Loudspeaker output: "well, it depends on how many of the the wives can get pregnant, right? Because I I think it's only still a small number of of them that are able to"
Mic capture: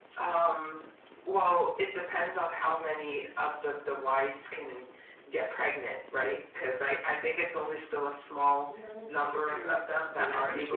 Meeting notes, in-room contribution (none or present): present